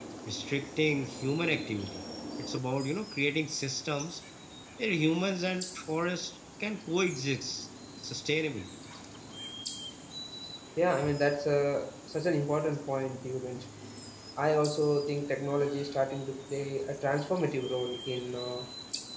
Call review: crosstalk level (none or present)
none